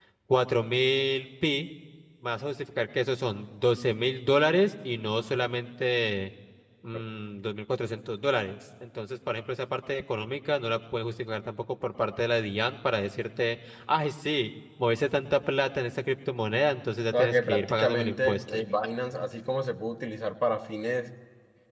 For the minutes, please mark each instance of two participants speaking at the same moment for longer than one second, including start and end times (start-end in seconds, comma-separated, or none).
17.1-18.6